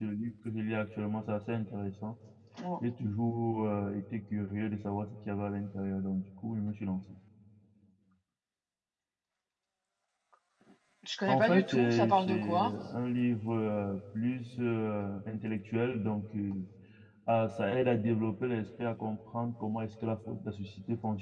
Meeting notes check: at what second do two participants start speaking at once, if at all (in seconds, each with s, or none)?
11.3 s